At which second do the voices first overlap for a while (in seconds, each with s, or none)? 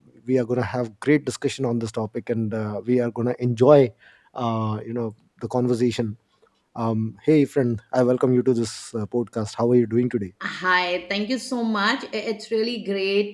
none